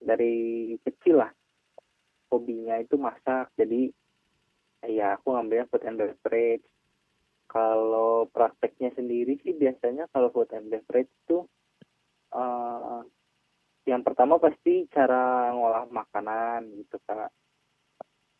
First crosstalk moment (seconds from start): none

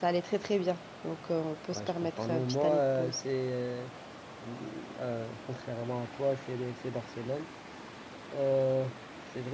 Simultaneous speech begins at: 2 s

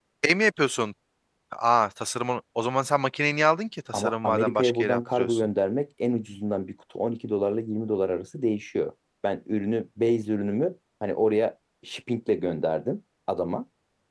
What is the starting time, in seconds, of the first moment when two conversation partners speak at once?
4 s

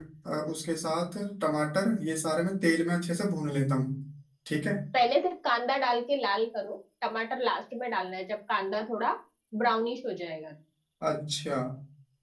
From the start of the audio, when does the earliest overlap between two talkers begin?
none

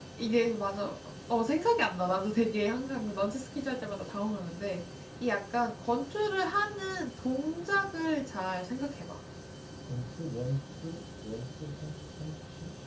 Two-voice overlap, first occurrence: none

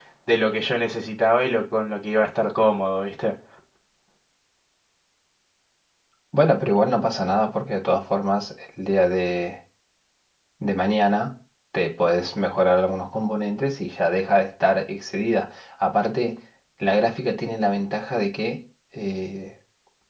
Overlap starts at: none

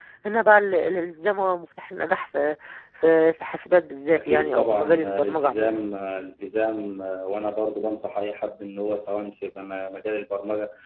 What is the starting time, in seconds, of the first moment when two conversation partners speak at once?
4 s

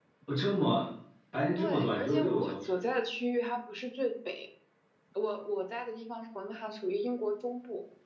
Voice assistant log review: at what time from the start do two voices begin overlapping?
2 s

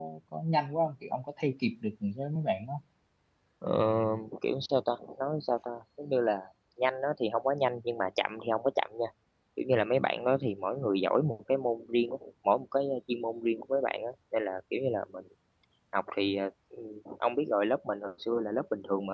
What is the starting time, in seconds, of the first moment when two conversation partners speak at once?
none

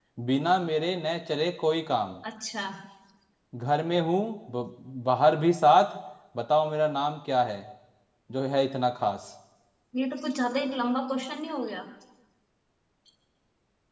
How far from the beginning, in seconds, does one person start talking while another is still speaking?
none

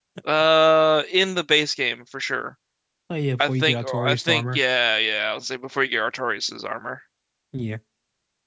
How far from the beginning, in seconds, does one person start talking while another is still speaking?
3 s

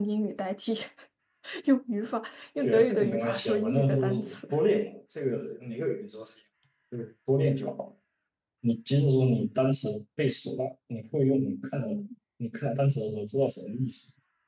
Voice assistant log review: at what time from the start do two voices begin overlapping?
3 s

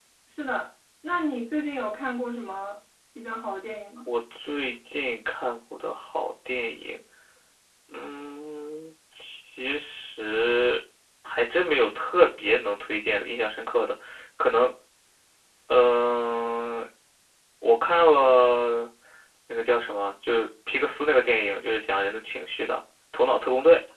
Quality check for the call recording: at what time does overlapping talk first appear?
none

